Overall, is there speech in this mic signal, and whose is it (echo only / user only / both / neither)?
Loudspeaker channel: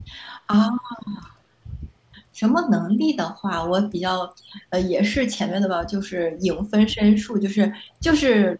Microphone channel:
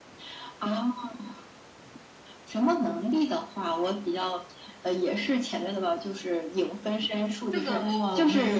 both